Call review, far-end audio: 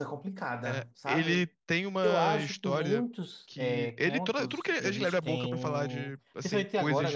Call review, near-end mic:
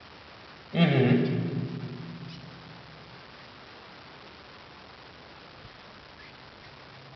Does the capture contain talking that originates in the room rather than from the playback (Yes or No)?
Yes